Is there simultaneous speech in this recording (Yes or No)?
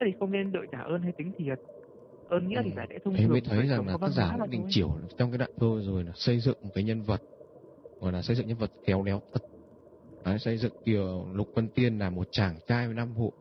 Yes